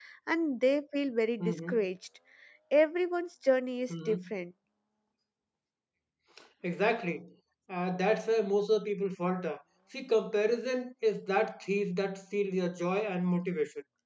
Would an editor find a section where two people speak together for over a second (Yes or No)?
No